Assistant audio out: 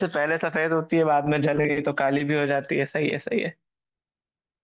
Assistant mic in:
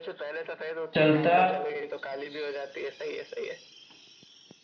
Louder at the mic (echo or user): user